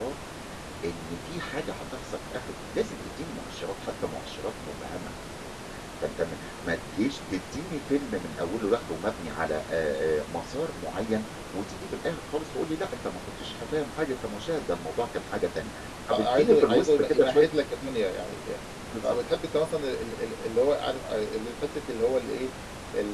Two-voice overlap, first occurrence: 16.1 s

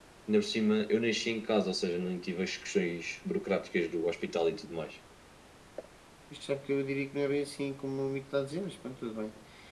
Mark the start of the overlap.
none

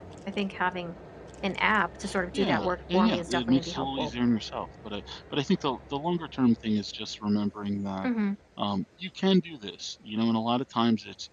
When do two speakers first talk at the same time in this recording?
2.3 s

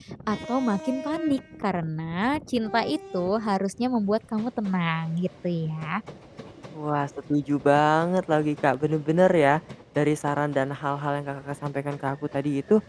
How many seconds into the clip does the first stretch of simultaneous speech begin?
none

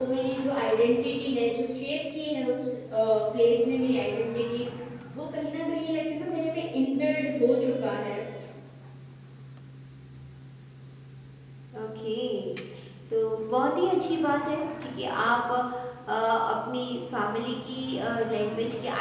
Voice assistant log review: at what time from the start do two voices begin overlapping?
none

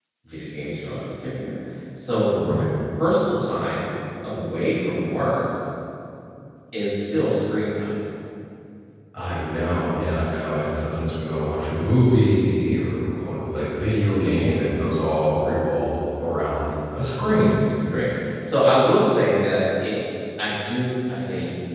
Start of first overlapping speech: none

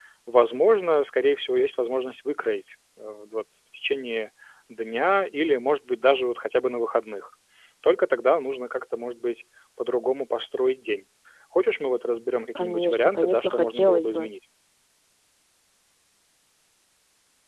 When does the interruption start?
12.6 s

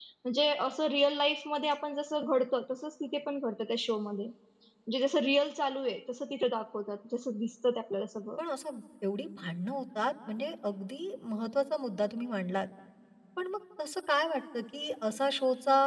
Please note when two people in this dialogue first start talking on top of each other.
none

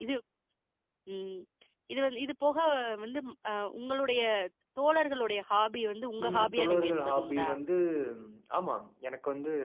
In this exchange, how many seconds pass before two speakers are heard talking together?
6.2 s

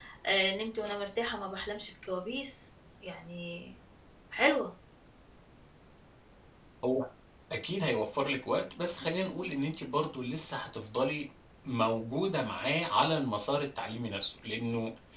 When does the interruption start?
none

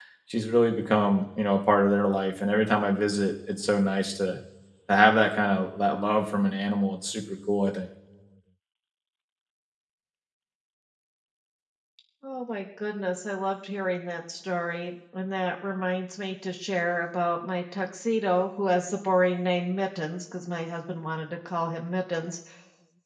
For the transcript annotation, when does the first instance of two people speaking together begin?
none

